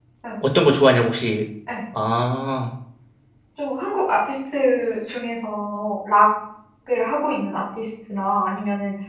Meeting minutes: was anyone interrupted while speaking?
No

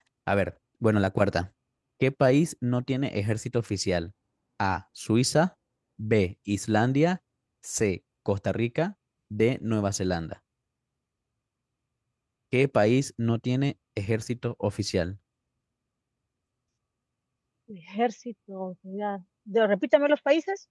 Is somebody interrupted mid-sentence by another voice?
No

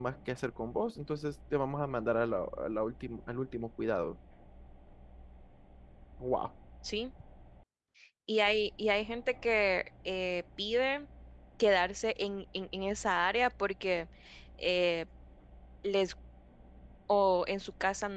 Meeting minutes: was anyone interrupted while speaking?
No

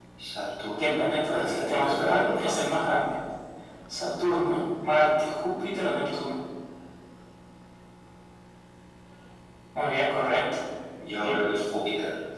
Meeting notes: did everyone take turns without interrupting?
No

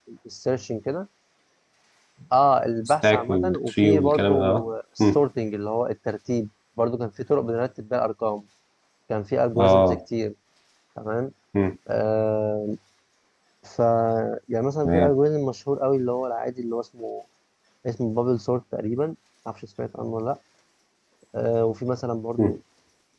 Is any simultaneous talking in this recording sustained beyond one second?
Yes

